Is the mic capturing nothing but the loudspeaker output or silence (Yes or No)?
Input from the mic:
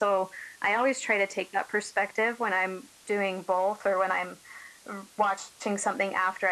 Yes